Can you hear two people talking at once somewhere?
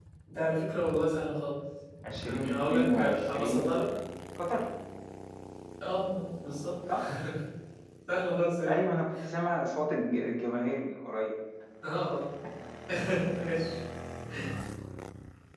Yes, from 2.2 s

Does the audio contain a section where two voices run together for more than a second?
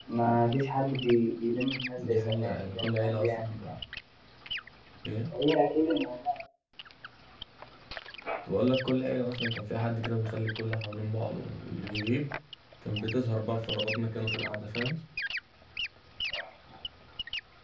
Yes, from 2.0 s

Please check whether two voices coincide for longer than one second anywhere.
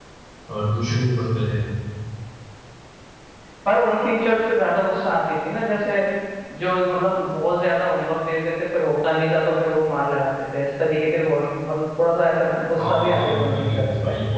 Yes, from 12.8 s

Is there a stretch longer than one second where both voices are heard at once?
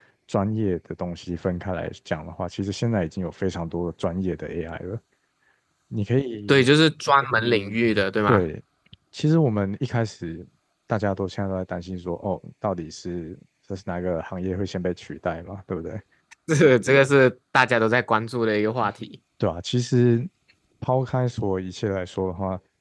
No

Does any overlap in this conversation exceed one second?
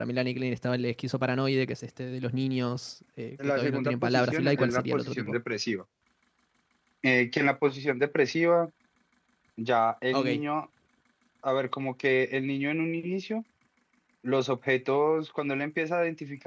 Yes, from 3.4 s

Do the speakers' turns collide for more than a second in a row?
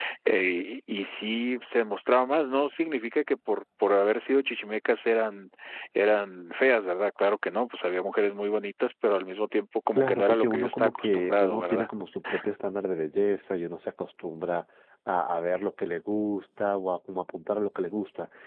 Yes, from 10.0 s

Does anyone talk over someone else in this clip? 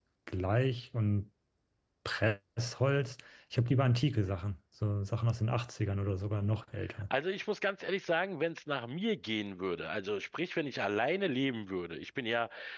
No

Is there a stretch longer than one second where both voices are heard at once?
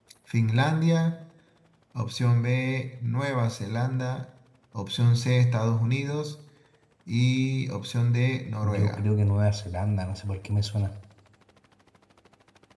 No

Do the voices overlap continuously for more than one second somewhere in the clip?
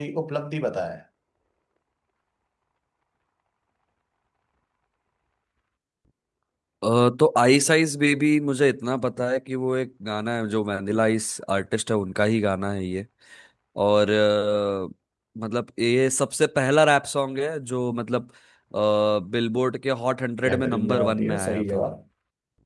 Yes, from 20.4 s

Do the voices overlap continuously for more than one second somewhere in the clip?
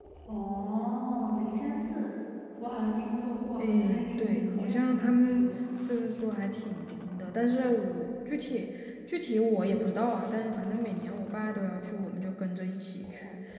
Yes, from 3.6 s

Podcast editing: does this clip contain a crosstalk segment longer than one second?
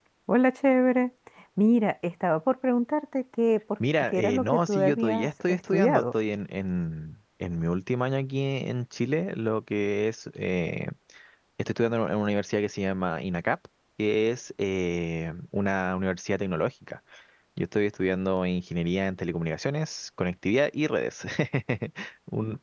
Yes, from 3.8 s

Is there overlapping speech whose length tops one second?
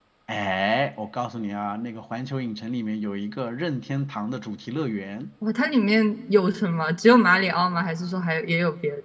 No

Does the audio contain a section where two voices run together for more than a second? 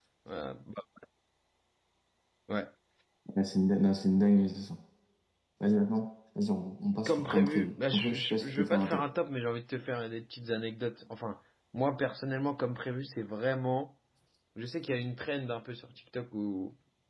Yes, from 7.1 s

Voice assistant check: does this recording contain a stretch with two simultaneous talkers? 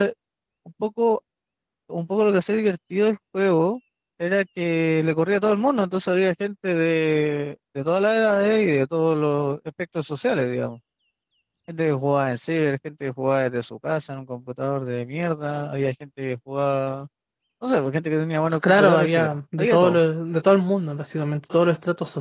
Yes, from 18.6 s

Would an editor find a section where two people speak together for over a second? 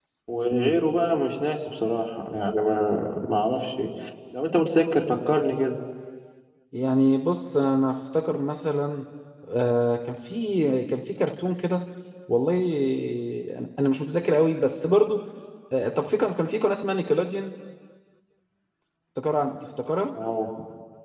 No

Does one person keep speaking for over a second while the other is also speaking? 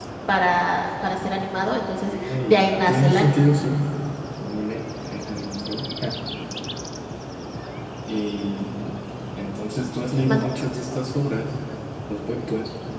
Yes, from 2.0 s

